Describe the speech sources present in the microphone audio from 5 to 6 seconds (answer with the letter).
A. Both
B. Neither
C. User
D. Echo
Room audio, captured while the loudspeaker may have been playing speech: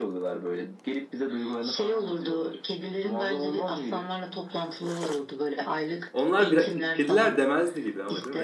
D